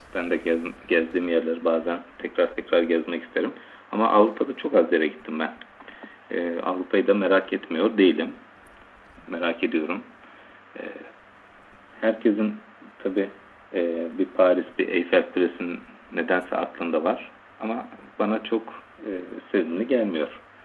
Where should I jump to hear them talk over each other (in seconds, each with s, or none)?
none